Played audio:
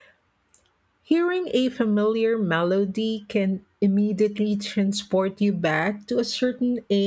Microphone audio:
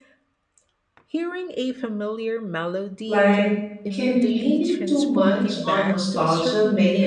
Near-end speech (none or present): present